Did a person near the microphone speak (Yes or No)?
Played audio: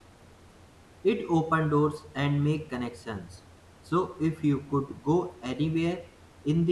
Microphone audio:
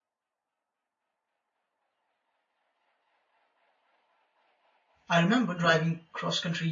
Yes